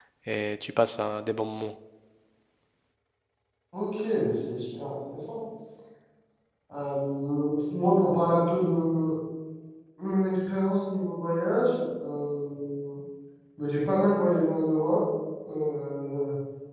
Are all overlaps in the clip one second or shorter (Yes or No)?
Yes